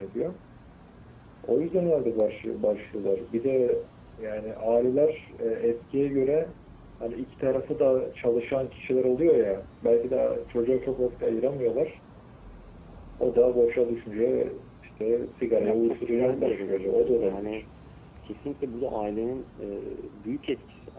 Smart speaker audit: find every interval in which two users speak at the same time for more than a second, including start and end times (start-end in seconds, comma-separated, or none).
15.6-17.6